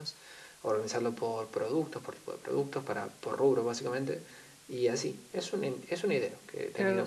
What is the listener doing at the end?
taking over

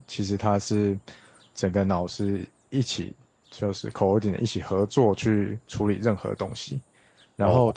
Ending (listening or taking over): listening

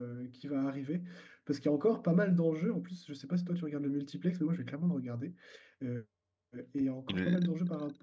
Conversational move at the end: listening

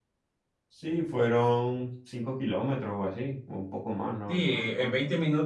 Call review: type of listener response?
taking over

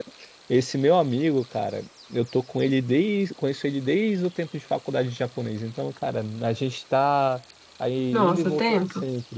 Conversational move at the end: listening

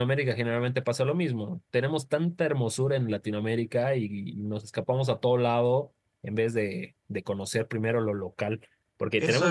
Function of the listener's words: taking over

